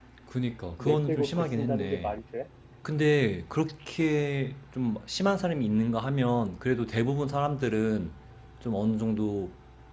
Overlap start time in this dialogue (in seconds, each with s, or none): 0.8 s